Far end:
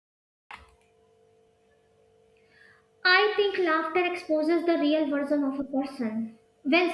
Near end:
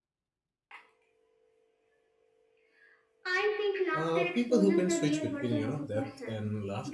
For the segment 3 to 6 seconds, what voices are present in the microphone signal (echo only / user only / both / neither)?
both